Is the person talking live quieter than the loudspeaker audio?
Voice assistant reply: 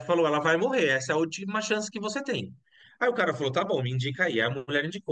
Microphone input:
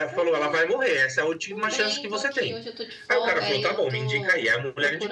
Yes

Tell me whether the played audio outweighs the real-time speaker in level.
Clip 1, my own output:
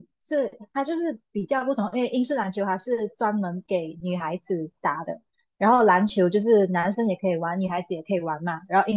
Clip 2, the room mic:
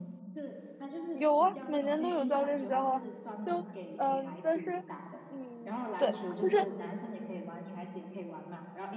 No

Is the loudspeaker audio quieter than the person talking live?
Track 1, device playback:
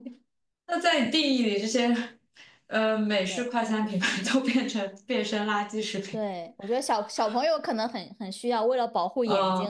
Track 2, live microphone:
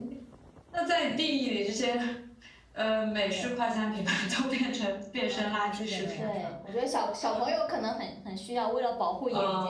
No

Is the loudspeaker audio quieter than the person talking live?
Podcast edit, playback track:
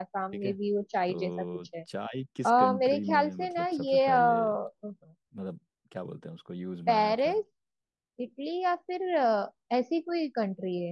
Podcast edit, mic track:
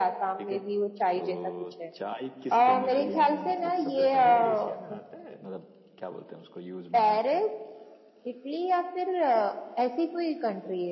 No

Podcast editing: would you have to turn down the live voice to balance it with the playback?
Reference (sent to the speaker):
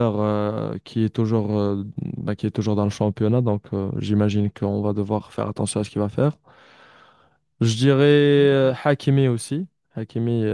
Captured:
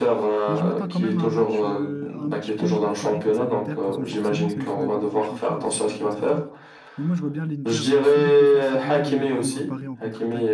No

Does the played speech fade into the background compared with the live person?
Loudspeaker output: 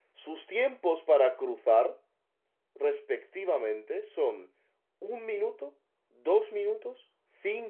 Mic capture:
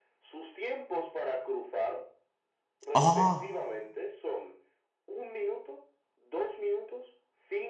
Yes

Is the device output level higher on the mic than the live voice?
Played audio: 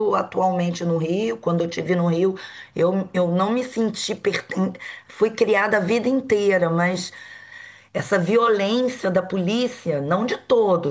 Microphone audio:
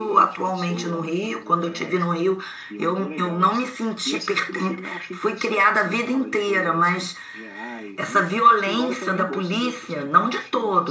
Yes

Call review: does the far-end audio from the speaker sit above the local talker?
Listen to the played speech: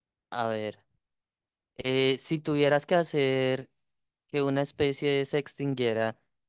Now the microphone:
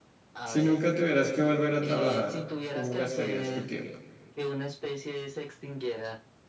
No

